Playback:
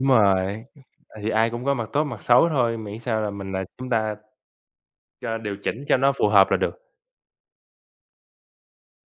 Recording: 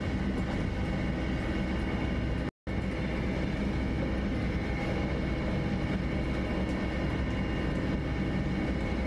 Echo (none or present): none